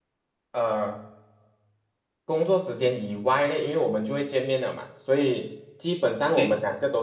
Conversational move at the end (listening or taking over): listening